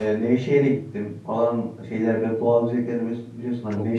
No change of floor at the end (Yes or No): Yes